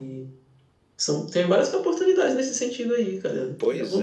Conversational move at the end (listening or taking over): taking over